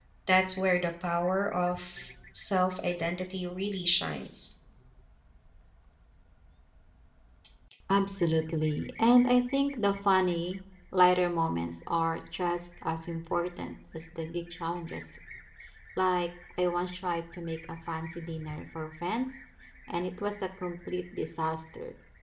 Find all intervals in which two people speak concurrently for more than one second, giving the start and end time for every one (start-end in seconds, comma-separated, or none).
none